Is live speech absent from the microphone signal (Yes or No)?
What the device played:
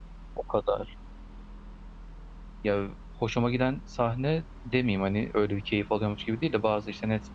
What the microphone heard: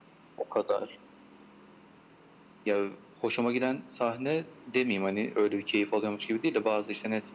Yes